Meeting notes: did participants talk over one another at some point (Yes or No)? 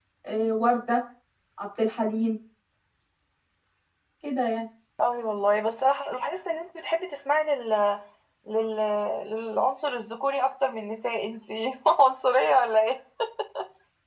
No